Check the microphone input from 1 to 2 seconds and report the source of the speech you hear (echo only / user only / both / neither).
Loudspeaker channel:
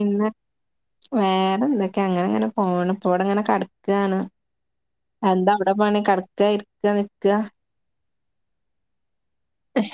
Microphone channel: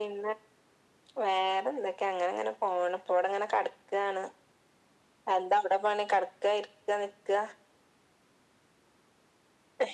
echo only